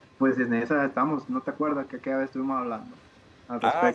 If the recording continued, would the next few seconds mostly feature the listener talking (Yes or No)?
Yes